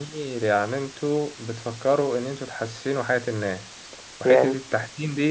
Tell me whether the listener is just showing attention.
Yes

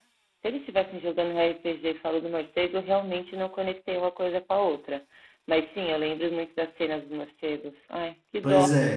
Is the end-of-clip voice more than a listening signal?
Yes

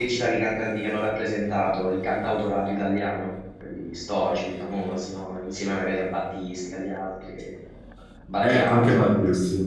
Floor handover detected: Yes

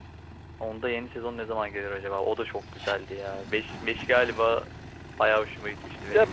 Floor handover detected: Yes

